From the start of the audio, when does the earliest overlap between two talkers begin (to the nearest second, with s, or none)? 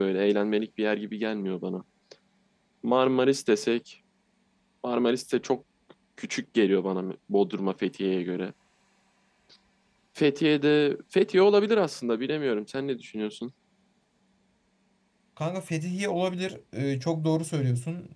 none